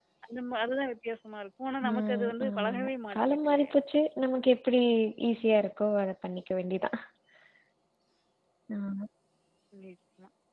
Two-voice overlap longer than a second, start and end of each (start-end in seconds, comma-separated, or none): 1.9-3.7